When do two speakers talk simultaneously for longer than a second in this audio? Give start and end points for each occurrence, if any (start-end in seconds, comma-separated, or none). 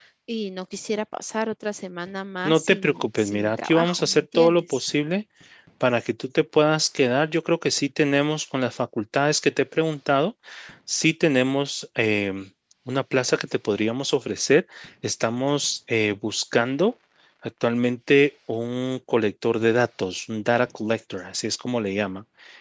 2.4-4.8